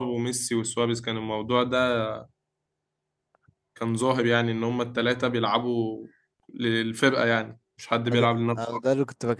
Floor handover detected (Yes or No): Yes